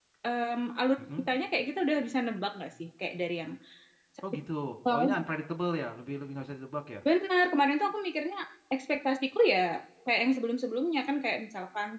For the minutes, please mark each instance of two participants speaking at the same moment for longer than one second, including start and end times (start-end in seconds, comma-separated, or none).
none